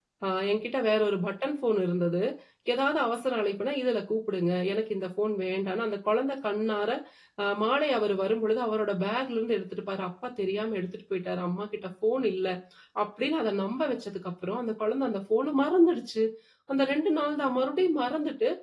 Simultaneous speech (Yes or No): No